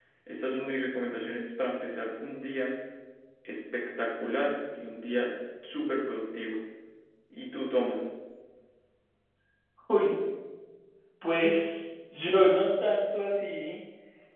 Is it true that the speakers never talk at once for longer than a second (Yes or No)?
Yes